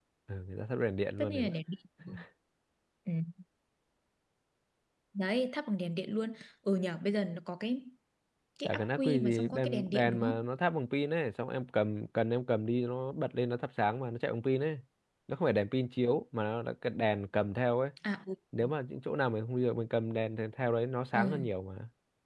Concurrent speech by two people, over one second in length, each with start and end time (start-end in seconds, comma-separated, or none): 8.7-10.4